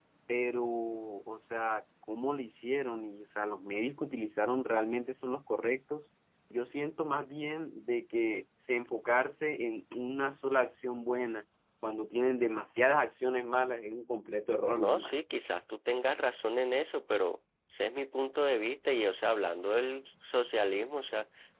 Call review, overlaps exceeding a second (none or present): none